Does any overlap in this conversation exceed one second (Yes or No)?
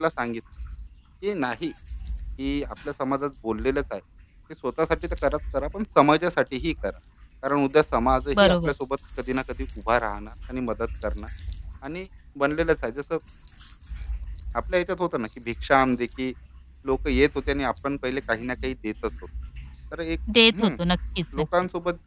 No